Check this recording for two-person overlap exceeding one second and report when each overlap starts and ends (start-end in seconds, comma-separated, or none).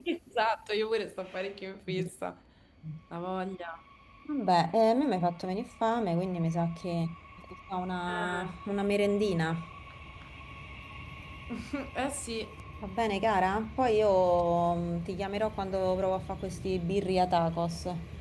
none